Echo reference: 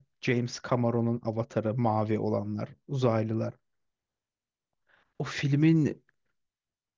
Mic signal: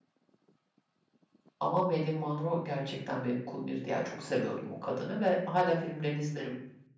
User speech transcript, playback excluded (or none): Ama Marilyn Monroe gerçekten benim kumirdi ya. Çok seviyordum o kadını ve hala filmlerini izlerim.